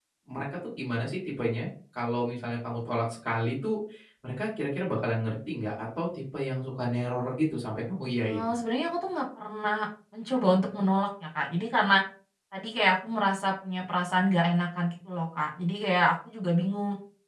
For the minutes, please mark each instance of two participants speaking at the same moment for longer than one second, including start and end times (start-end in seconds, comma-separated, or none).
none